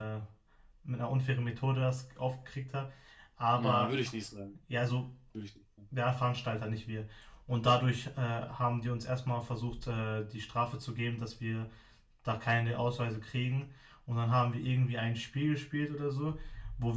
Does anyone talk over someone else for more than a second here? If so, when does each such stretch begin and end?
none

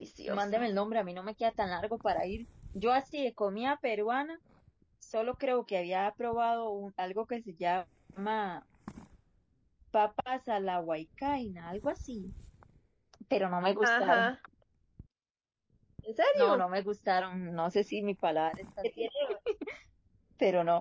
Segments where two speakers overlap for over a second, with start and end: none

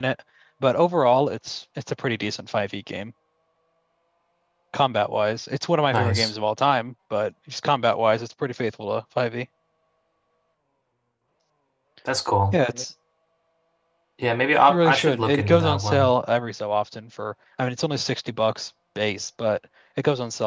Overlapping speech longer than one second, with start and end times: 14.7-16.1

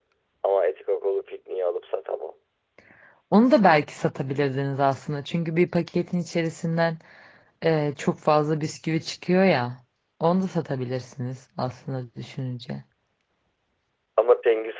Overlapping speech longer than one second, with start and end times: none

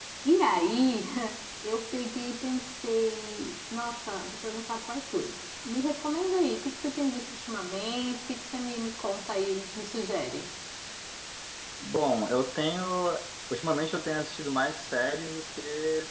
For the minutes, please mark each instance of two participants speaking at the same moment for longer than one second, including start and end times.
none

